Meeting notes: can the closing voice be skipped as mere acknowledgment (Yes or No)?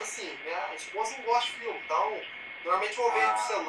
Yes